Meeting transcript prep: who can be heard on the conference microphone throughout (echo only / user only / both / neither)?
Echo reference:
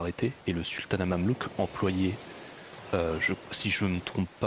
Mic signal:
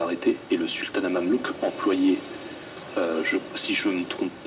echo only